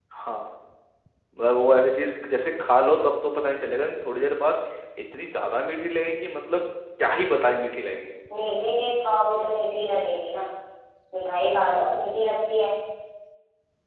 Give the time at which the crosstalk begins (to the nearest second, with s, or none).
none